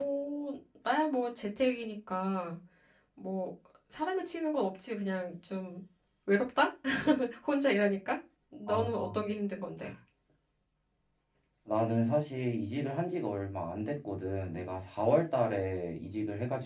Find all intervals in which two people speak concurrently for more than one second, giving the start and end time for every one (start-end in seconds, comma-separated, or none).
none